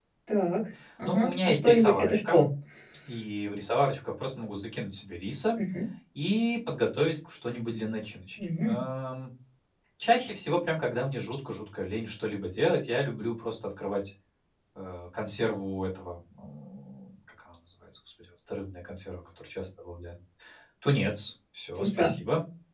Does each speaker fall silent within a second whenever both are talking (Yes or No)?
No